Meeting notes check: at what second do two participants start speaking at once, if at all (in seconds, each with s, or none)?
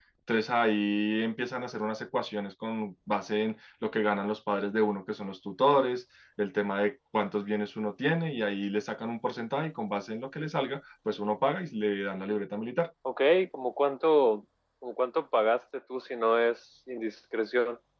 none